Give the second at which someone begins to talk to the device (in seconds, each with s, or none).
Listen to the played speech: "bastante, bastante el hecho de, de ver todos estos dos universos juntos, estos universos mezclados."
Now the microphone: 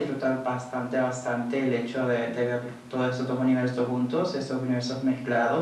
none